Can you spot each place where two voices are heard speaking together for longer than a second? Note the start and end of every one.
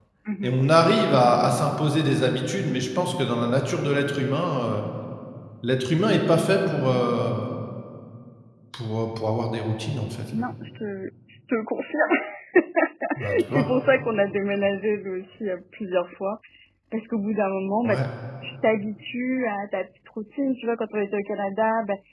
none

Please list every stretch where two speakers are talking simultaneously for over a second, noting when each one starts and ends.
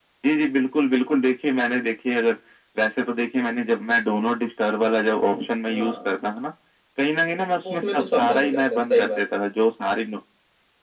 7.6-9.2

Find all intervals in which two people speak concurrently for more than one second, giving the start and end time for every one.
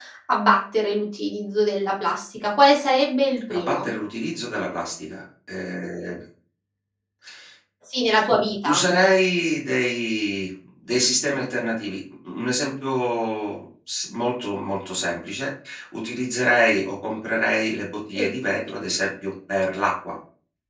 none

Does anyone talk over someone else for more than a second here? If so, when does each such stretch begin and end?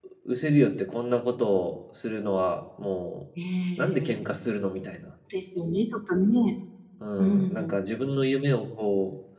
none

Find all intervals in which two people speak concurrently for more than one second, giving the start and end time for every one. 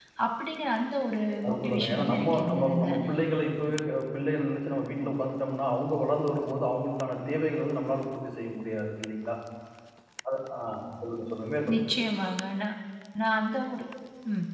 1.5-2.9

